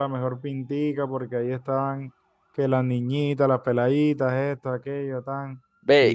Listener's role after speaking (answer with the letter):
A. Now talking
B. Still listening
A